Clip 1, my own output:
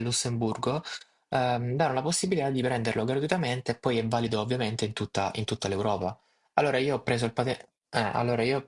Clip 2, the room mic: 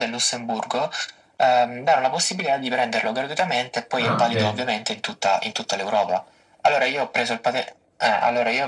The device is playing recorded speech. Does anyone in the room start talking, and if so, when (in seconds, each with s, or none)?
4.0 s